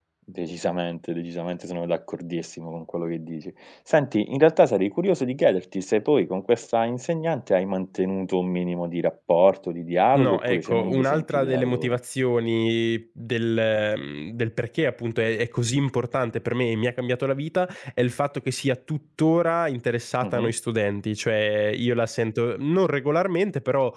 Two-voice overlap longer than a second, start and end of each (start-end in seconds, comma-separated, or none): 10.1-12.0